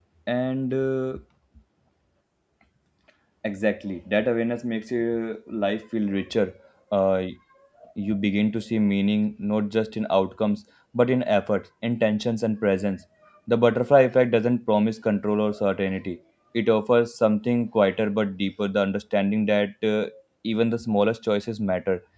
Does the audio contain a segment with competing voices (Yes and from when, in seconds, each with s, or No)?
No